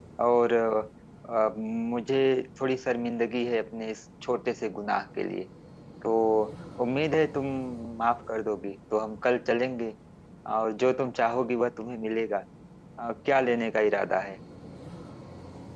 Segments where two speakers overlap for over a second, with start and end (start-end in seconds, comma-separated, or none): none